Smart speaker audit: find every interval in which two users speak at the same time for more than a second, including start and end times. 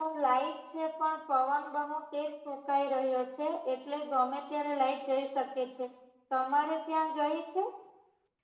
none

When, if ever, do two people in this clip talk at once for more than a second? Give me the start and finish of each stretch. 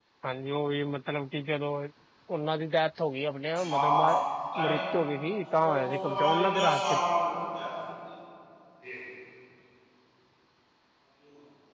5.6-7.0

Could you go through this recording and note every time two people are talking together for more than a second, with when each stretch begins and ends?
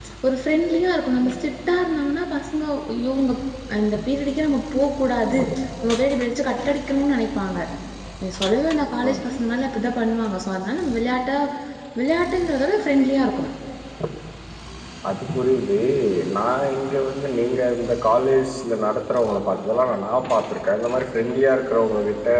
none

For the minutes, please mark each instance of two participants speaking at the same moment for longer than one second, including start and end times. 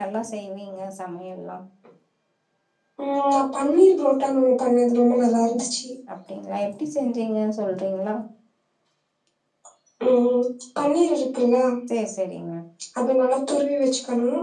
none

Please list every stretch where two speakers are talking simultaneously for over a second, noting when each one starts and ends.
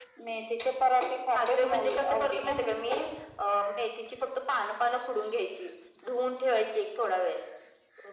1.4-2.9

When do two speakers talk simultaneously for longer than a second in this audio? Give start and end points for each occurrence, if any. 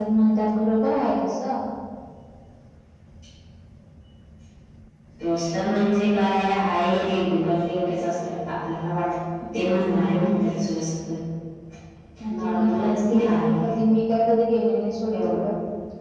12.3-13.5

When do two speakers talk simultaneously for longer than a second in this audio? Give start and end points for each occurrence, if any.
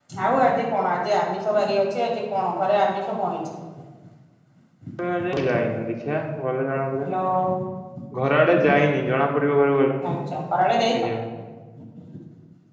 none

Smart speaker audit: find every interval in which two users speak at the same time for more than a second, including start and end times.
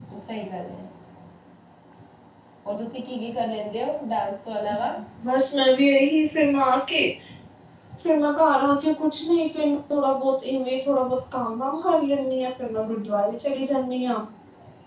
none

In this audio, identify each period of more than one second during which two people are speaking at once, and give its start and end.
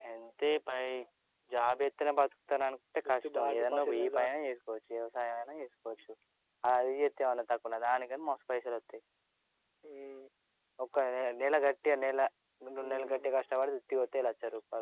3.1-4.3

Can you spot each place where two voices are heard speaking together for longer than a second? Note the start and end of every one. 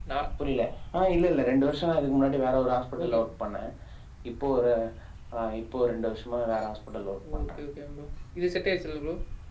none

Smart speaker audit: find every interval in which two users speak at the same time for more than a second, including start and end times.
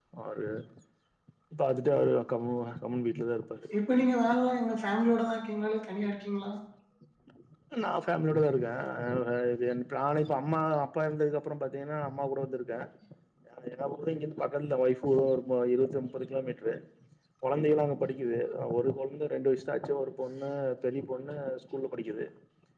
none

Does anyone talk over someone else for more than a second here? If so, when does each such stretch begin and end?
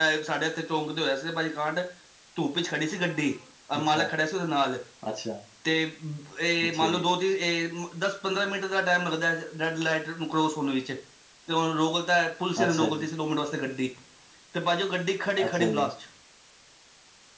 none

